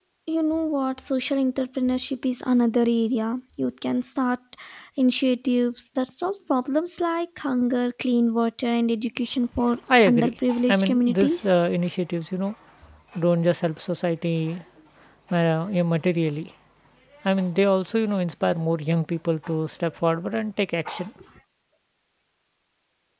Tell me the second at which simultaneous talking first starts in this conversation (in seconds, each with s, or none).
9.9 s